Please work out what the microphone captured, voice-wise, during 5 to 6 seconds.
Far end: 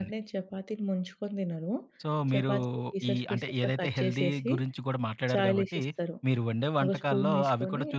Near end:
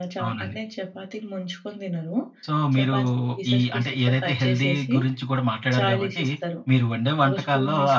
echo only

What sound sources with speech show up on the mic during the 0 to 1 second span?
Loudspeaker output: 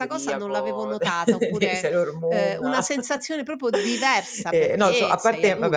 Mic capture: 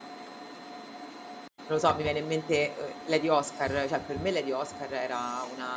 neither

